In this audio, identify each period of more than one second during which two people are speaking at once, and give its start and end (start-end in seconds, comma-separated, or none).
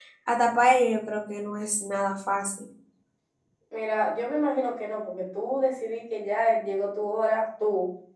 none